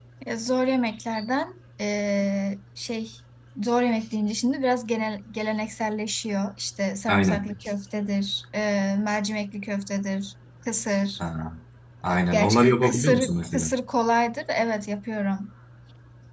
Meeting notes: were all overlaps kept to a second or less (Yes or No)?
No